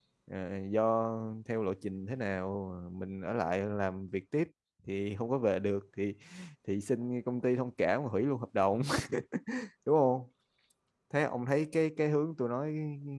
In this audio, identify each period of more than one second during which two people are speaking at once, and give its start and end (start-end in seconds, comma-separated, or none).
none